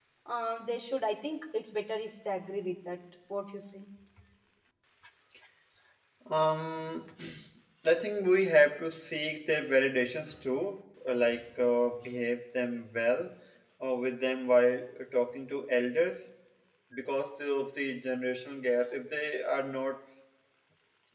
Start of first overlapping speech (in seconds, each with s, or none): none